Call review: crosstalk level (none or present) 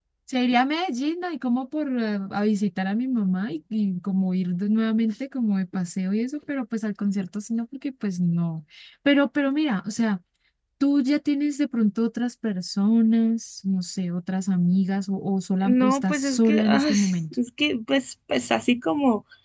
present